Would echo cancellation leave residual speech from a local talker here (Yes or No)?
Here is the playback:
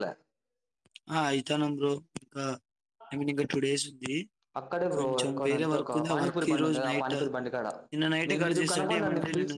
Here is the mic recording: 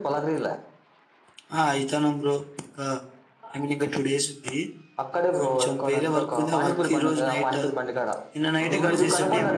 Yes